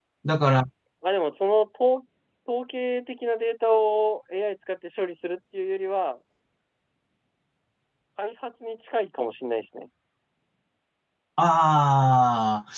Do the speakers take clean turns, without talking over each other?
Yes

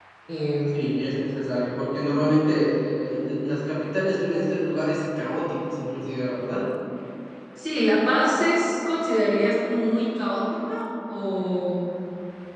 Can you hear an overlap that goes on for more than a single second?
No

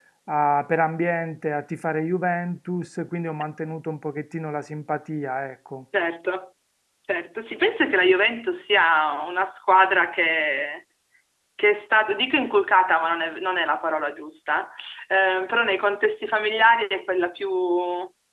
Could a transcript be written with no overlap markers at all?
Yes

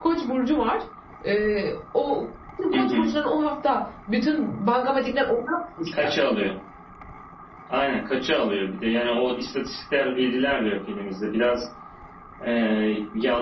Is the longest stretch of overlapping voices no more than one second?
Yes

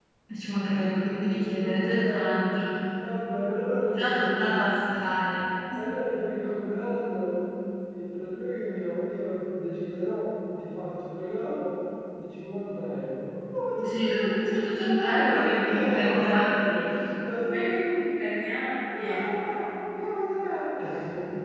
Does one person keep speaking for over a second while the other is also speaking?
Yes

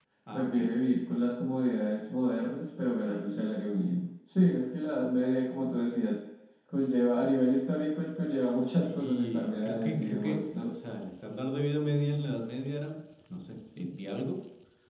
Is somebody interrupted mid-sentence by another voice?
Yes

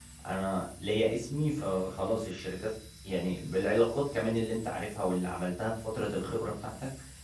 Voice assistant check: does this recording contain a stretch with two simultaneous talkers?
No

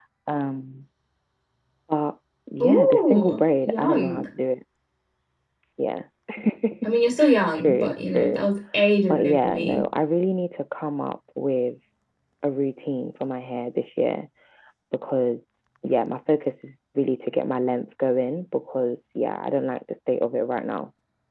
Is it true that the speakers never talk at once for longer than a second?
No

